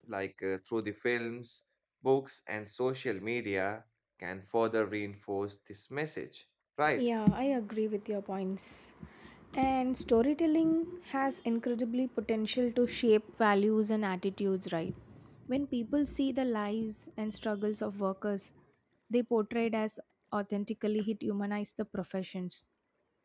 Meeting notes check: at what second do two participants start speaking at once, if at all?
none

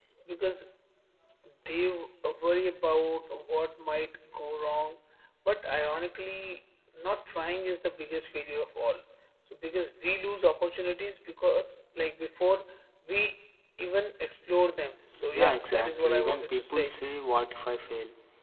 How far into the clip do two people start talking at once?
15.3 s

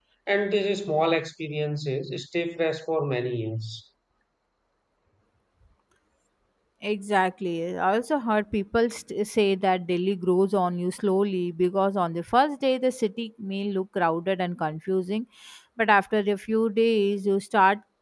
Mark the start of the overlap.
none

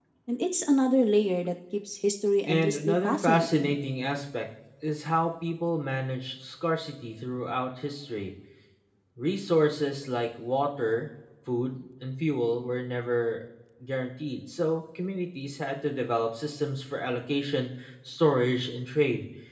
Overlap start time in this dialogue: 2.5 s

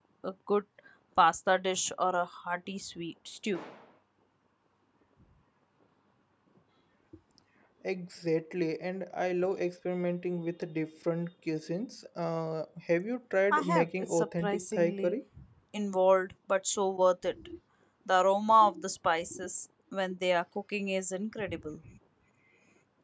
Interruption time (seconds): 13.5 s

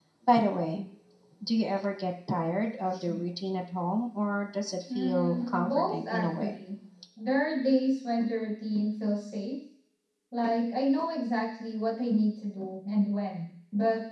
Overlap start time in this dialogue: 4.9 s

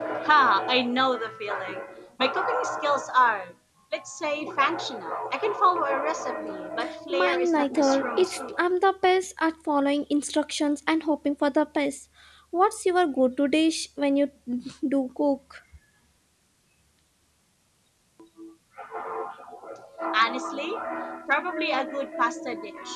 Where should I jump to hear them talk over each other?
7.1 s

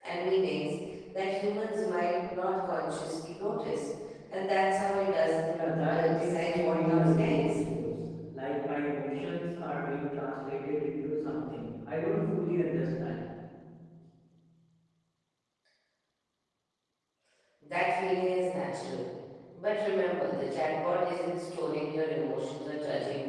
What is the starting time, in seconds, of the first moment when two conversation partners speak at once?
5.5 s

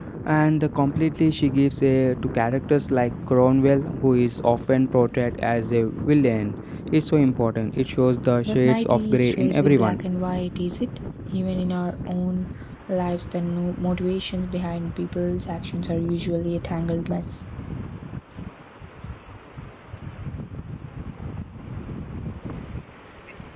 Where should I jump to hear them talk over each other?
8.4 s

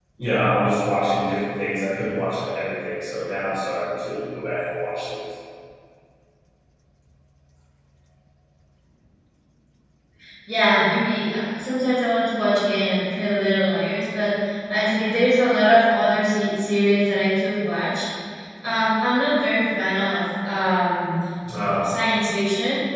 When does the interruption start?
none

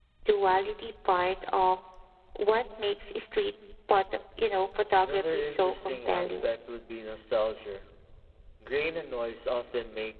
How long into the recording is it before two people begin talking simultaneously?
5.0 s

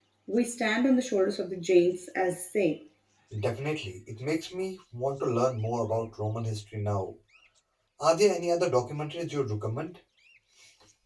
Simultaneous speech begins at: none

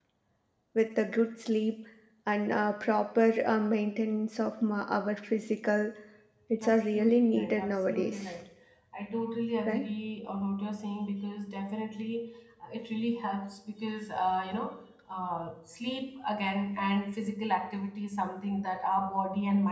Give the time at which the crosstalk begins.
6.6 s

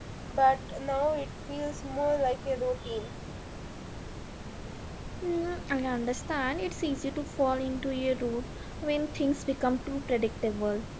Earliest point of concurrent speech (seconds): none

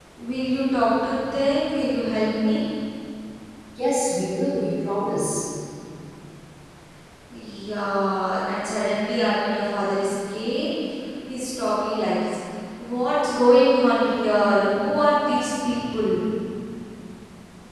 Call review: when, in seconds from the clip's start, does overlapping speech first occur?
none

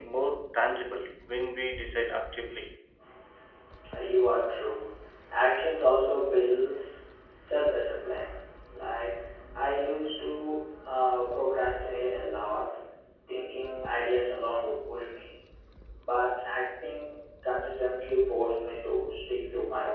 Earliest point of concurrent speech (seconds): none

